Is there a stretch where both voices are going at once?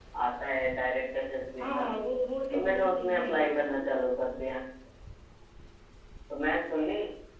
Yes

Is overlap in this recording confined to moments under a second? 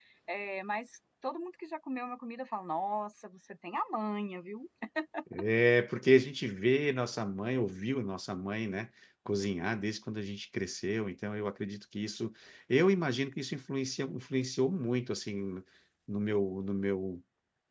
Yes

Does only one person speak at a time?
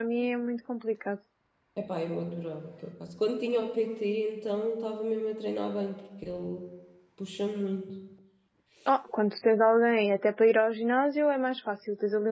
Yes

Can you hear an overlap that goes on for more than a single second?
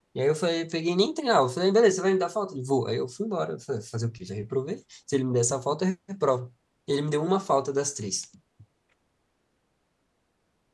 No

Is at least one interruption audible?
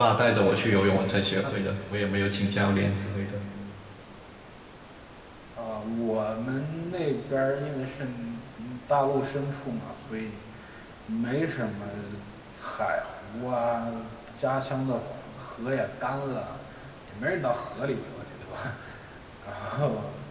No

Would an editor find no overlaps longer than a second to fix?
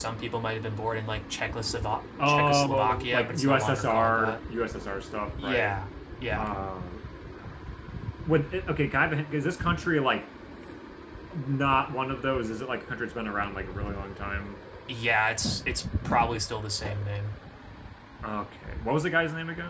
No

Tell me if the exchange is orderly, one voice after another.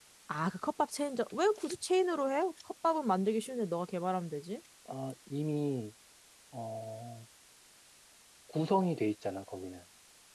Yes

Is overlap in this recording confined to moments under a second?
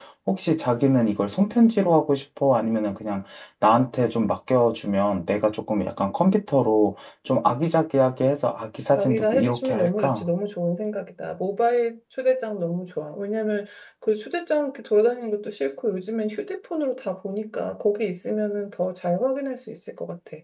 No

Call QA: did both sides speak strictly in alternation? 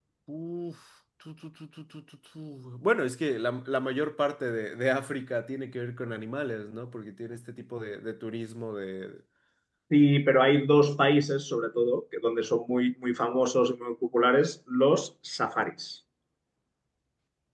Yes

